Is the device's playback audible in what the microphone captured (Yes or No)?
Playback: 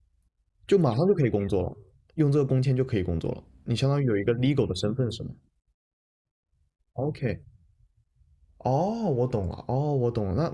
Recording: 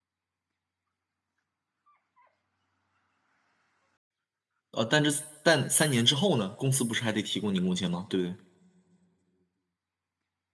No